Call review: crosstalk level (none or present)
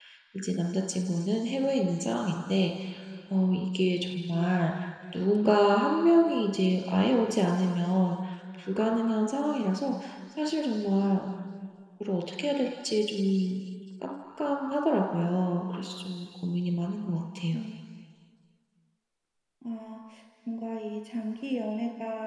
none